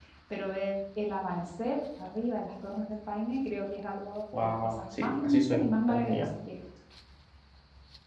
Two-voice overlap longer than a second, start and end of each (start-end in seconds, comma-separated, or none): 4.4-6.3